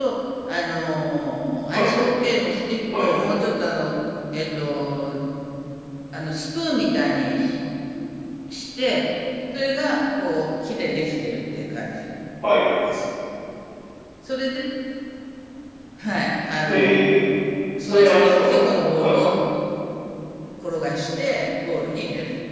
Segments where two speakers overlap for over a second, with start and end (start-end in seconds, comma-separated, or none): 17.9-19.2